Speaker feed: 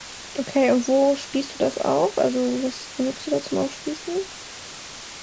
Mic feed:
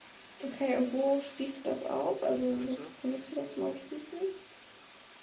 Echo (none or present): present